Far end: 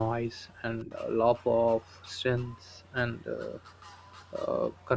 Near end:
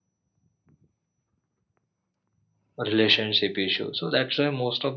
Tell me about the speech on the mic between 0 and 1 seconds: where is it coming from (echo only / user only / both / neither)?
neither